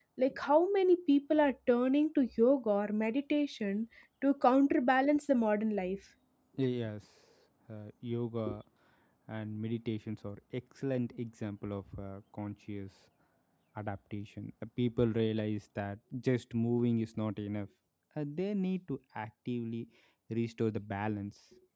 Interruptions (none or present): none